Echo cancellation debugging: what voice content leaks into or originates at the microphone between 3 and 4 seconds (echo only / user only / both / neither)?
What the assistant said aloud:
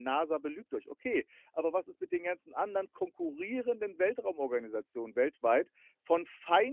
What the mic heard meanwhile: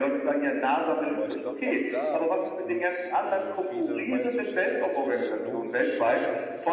both